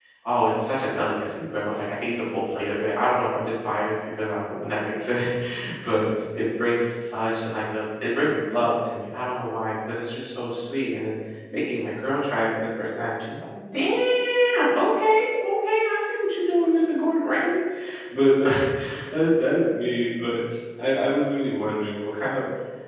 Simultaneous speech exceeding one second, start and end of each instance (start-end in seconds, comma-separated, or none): none